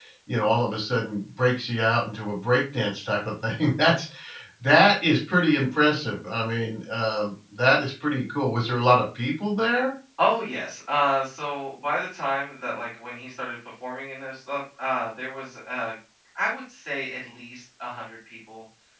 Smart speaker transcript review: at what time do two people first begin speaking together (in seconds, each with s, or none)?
none